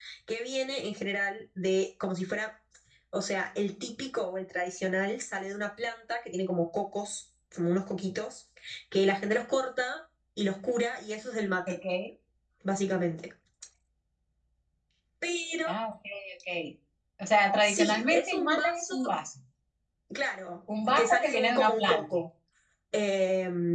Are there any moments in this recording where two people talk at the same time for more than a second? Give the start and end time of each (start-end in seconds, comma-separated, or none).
17.6-18.9, 20.9-22.2